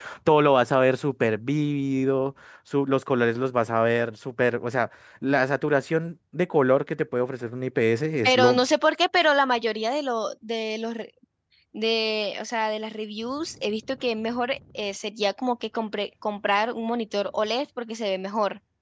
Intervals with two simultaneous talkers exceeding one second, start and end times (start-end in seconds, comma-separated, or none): none